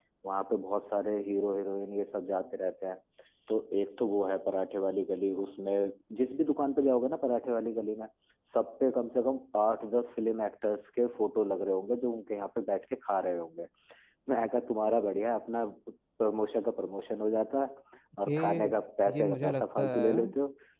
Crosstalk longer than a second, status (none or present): present